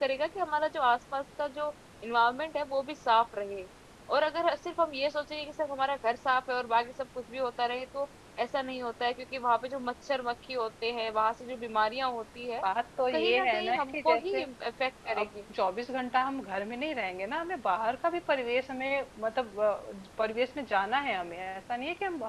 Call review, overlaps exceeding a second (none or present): present